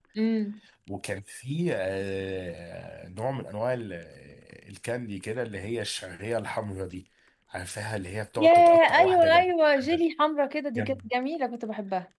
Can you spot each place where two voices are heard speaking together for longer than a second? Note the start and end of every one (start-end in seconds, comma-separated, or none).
8.4-10.0